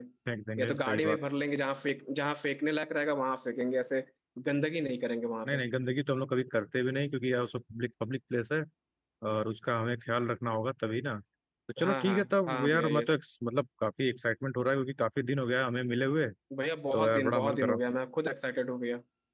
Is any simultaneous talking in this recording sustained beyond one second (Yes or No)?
Yes